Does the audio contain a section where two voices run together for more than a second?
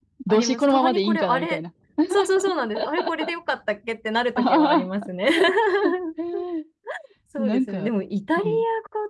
Yes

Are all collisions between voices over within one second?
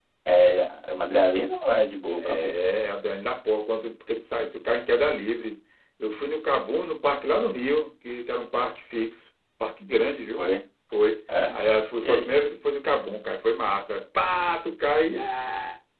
Yes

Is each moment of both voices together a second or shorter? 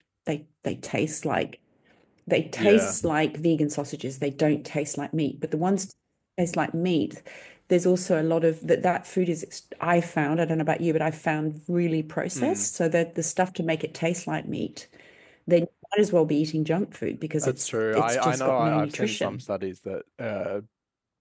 No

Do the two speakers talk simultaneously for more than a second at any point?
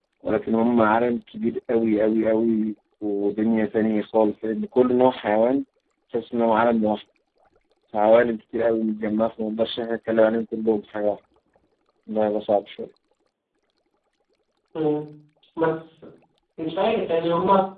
No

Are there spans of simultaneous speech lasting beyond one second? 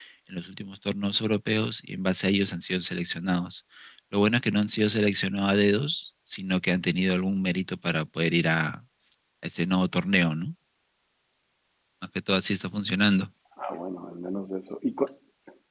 No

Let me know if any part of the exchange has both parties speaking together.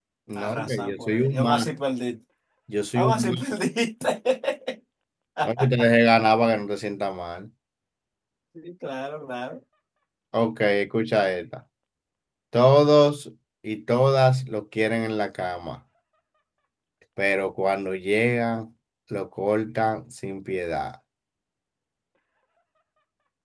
Yes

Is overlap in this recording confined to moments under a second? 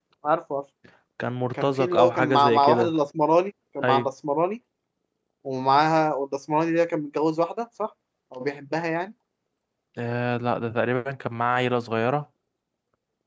No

